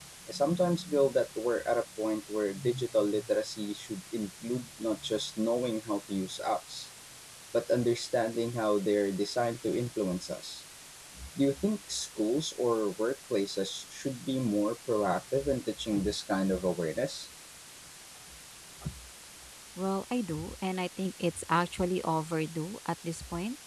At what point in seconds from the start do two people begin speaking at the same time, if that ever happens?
none

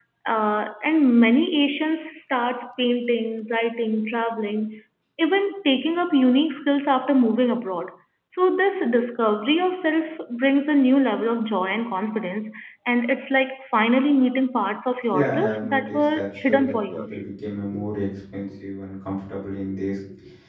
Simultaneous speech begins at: 15.1 s

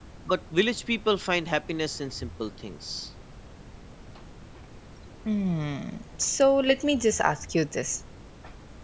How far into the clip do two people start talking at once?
none

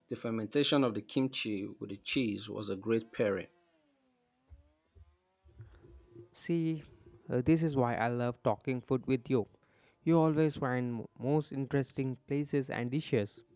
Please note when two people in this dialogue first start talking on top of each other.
none

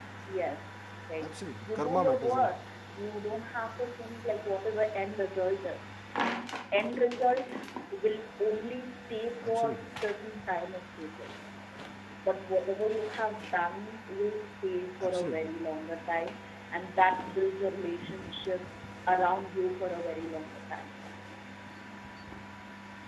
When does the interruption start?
1.2 s

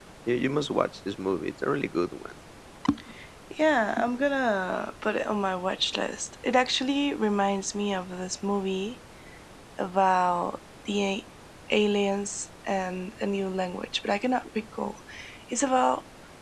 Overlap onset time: none

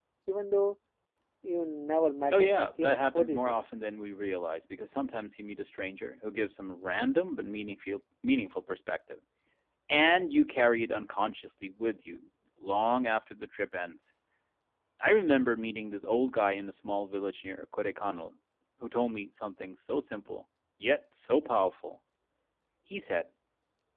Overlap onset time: 2.3 s

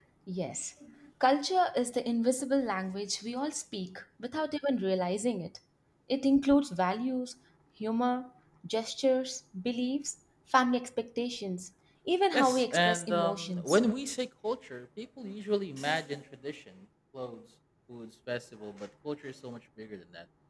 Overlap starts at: 12.3 s

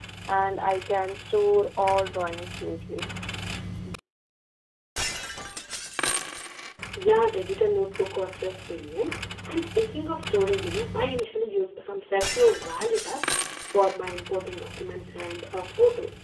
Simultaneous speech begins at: none

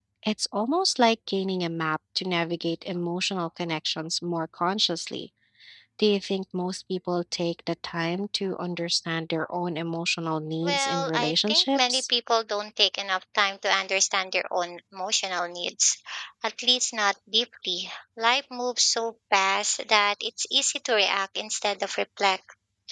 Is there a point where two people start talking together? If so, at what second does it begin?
10.6 s

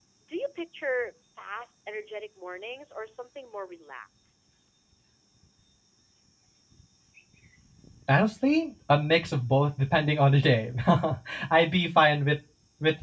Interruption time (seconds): none

